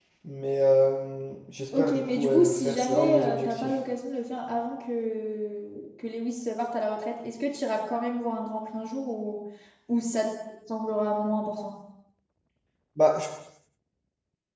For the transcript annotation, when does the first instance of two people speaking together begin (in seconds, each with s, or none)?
1.7 s